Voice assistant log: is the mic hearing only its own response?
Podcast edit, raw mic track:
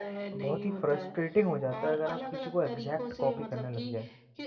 No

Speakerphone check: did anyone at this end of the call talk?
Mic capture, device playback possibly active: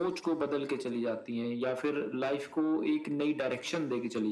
No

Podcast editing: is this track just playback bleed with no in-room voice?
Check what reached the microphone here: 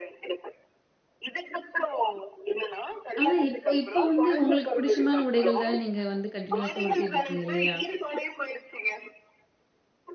No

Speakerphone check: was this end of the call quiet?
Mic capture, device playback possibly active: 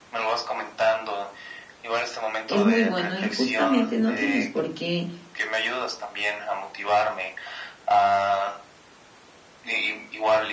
No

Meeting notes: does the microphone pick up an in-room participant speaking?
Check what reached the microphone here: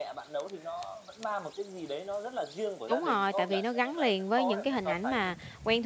Yes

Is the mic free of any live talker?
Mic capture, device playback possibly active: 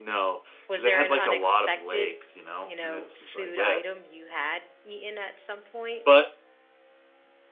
No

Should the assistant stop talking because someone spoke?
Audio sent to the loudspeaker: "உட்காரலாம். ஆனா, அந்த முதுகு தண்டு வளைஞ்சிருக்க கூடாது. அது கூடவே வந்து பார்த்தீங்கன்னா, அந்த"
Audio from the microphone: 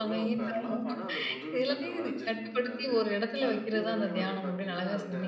Yes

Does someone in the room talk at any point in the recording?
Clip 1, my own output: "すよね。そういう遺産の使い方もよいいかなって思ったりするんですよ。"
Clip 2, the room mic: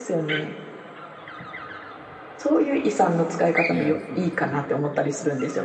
Yes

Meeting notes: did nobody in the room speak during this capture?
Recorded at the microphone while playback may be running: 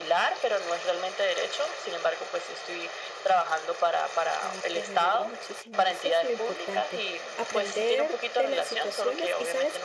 No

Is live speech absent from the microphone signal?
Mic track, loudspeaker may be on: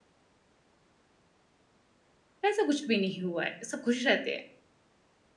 No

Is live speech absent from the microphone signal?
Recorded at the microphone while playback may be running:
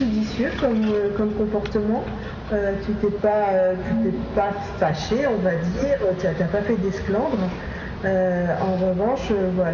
No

